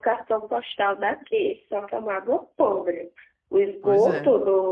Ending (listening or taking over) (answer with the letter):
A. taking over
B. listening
B